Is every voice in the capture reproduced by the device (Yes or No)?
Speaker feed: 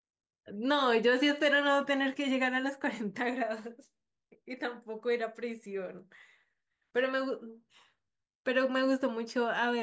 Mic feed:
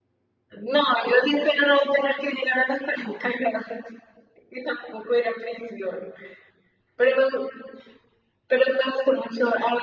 Yes